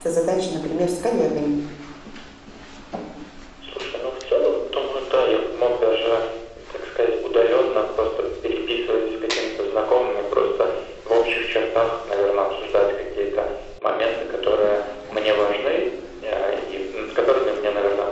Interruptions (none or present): none